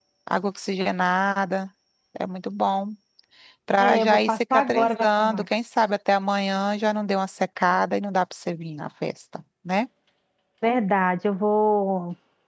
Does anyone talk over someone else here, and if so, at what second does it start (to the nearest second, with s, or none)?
4 s